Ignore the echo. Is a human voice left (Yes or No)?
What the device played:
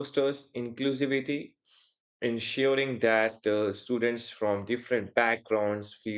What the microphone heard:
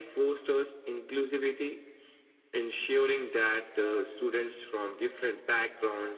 No